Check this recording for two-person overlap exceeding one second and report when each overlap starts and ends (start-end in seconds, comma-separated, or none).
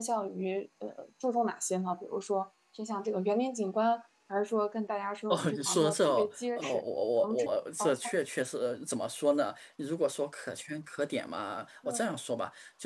5.3-6.8